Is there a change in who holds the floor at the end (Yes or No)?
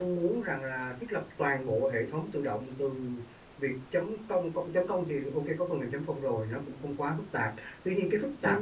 No